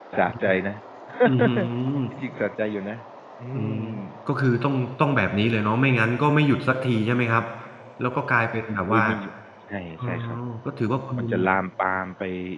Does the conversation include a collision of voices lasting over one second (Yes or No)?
No